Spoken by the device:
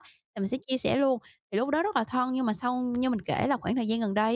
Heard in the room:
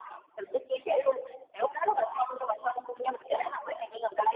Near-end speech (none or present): none